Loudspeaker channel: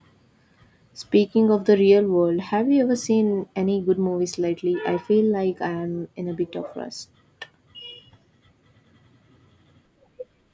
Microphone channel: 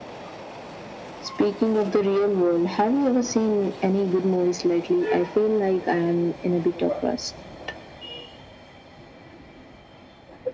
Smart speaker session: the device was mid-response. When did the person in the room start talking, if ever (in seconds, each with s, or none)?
none